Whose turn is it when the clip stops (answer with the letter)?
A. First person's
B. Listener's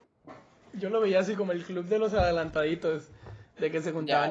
A